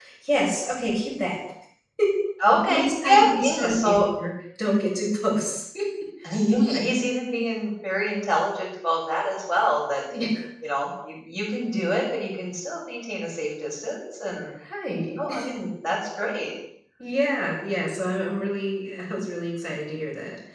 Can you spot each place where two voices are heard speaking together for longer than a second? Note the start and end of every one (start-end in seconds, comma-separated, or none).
2.6-4.0